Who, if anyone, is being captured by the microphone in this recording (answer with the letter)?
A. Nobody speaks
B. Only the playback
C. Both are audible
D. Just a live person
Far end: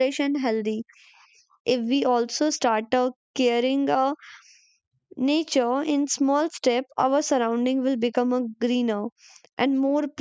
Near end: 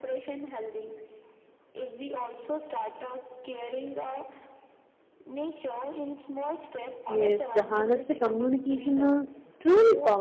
C